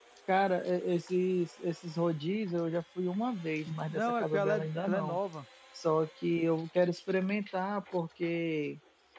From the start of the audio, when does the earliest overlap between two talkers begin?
3.7 s

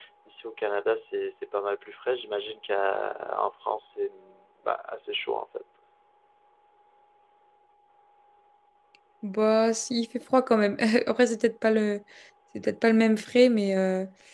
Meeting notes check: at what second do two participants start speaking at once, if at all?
none

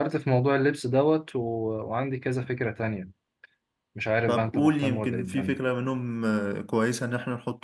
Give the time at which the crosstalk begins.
4.3 s

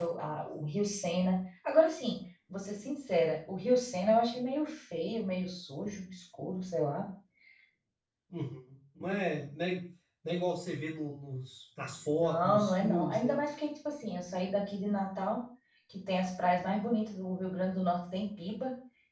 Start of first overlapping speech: 12.2 s

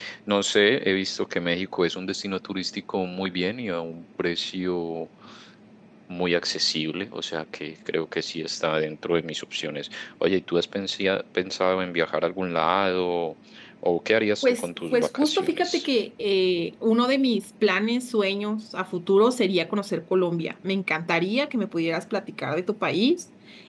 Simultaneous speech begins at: 14.4 s

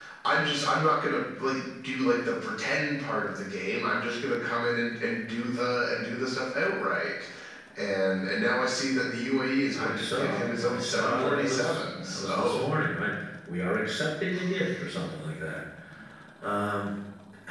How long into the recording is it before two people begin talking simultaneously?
9.7 s

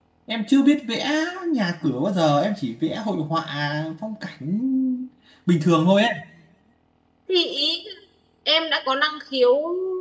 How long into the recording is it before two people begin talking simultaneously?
none

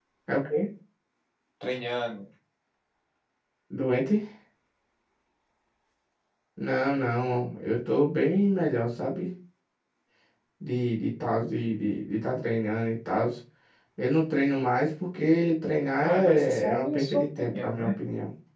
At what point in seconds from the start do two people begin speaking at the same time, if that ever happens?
16.0 s

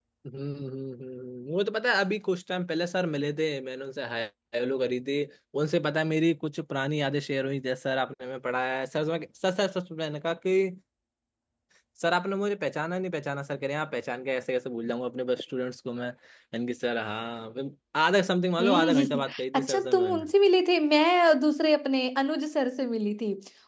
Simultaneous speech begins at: 18.6 s

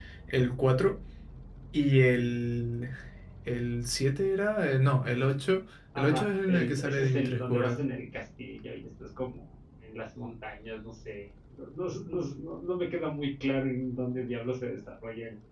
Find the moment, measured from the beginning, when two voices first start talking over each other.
6.0 s

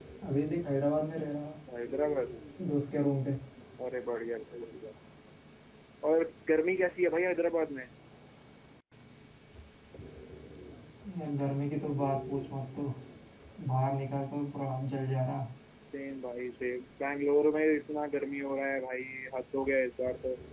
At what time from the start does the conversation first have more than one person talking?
none

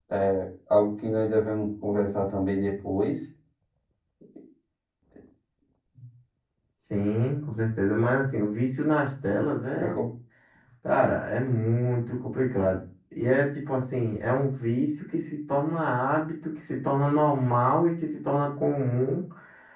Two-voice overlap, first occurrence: none

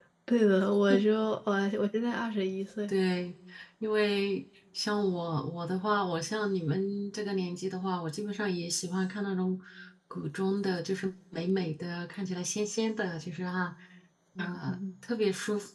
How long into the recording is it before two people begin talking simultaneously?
none

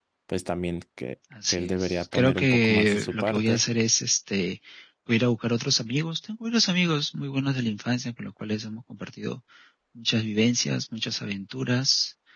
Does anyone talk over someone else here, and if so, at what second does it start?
1.3 s

